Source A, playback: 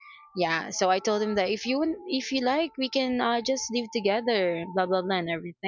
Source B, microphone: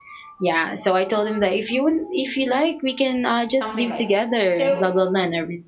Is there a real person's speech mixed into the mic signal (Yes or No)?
Yes